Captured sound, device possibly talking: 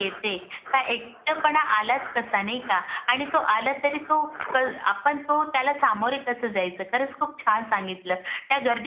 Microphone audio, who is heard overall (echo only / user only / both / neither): echo only